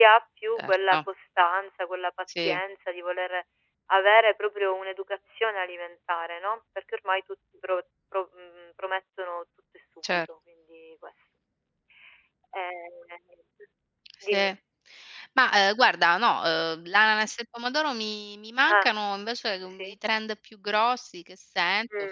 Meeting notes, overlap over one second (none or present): none